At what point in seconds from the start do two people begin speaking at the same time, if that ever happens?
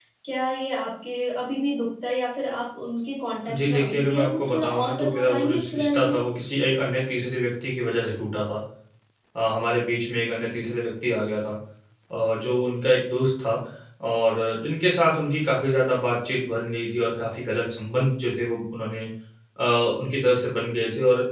3.4 s

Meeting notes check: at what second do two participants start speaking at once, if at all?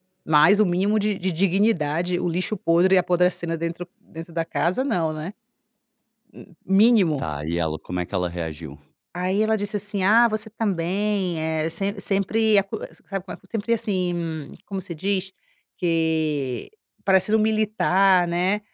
none

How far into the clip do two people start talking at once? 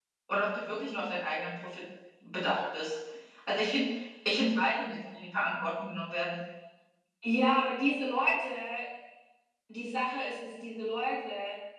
none

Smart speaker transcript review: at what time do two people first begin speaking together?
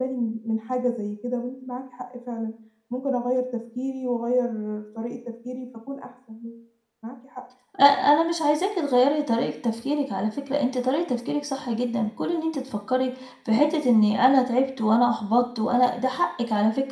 none

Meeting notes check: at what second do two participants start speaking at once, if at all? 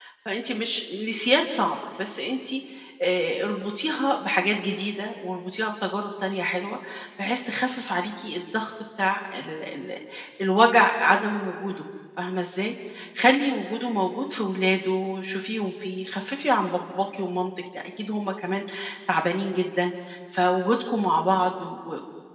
none

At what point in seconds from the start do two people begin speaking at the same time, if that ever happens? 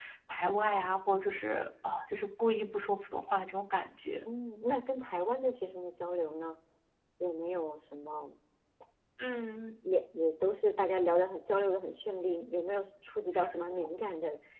none

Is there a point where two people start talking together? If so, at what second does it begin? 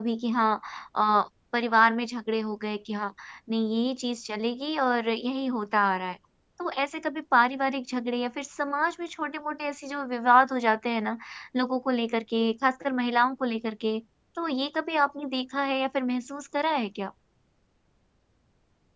none

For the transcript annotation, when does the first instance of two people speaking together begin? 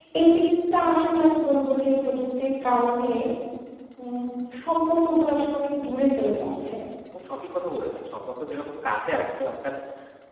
none

